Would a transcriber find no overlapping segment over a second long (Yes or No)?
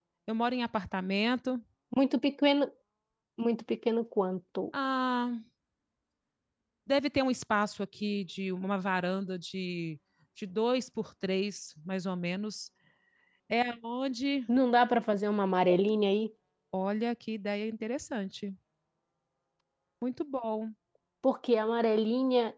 Yes